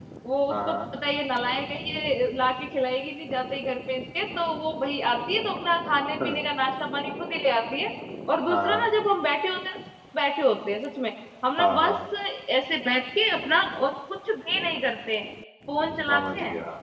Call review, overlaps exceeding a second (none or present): none